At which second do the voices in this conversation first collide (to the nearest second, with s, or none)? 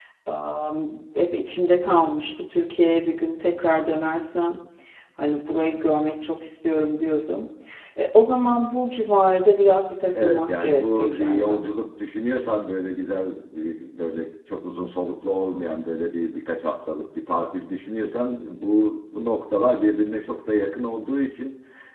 10 s